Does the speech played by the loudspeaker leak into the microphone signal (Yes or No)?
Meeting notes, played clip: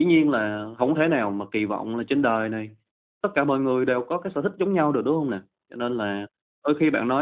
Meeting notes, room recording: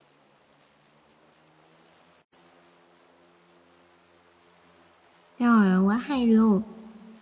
No